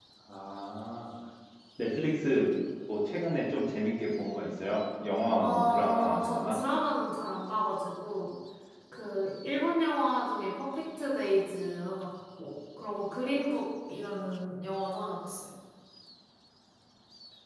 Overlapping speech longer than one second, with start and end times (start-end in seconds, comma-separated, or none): 5.4-6.6